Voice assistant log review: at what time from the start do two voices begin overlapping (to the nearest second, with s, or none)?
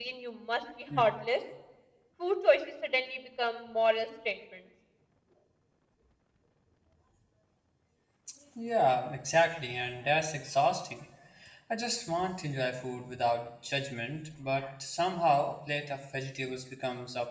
none